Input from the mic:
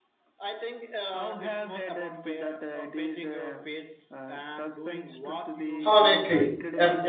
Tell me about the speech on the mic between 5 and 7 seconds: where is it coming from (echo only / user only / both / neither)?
both